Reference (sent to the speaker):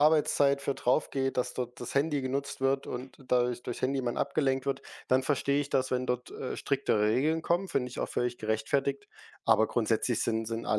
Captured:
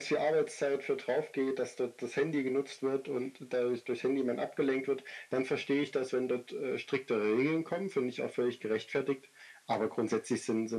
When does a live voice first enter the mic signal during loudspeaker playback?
none

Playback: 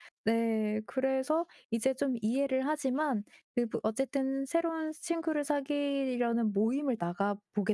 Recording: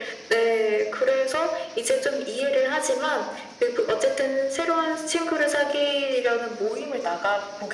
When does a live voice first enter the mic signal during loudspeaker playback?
none

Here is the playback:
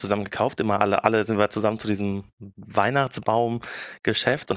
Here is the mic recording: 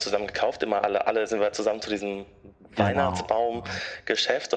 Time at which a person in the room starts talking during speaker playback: 2.8 s

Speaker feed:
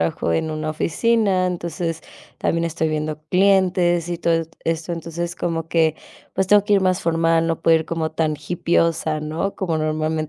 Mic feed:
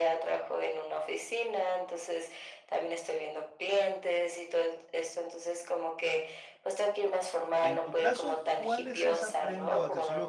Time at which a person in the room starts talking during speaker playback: 7.6 s

